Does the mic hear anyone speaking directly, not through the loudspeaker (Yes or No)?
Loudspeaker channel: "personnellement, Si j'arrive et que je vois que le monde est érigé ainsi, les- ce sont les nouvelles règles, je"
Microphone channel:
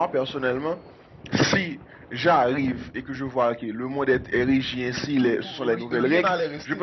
Yes